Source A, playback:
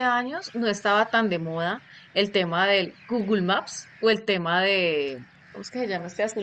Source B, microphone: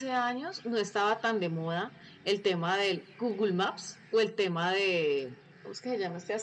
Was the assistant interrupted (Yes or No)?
No